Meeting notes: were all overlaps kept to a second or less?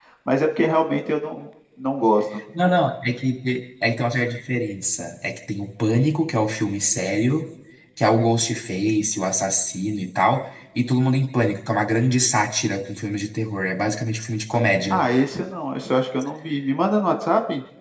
Yes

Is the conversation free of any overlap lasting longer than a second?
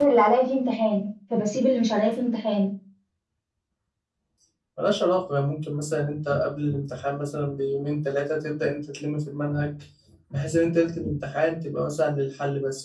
Yes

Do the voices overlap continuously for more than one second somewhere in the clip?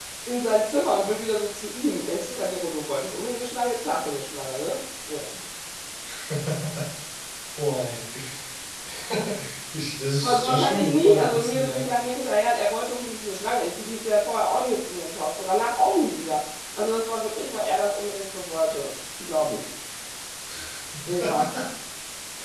Yes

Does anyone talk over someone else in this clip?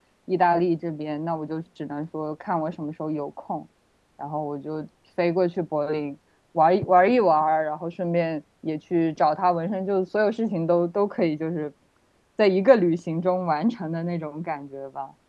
No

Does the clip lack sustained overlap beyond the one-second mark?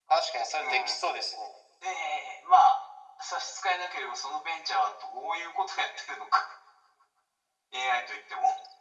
Yes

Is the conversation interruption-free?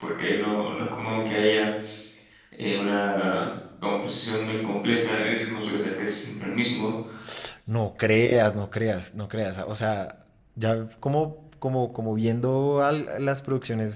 Yes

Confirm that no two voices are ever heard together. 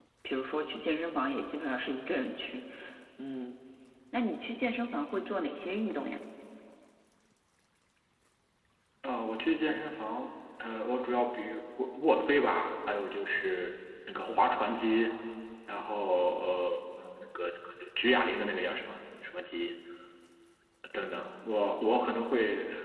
Yes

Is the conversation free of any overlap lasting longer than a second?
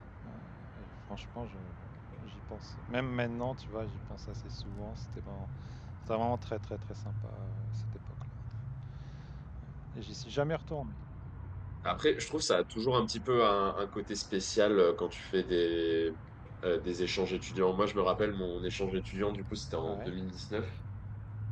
Yes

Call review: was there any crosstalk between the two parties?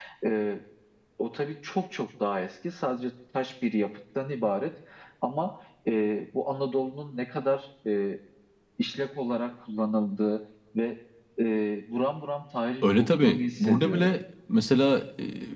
Yes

